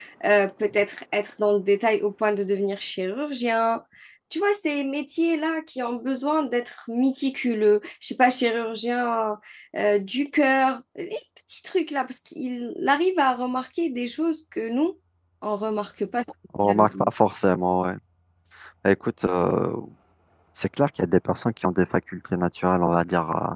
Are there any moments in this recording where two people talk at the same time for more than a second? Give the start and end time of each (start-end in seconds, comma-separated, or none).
none